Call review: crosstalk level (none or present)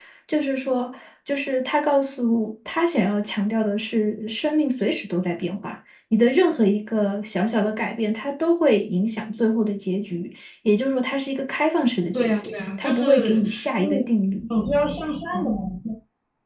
present